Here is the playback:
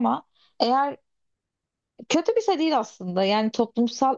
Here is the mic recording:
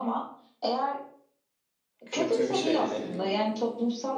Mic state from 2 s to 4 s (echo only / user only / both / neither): both